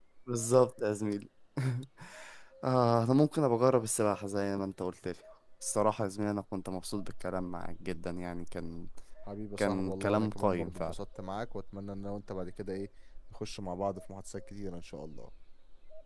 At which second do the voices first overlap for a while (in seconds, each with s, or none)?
9.6 s